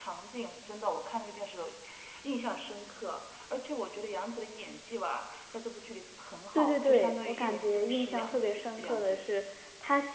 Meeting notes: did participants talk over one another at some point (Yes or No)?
Yes